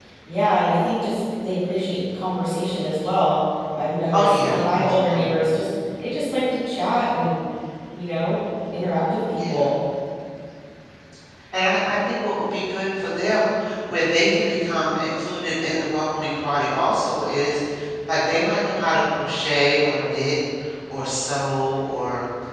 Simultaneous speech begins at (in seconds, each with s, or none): 4.1 s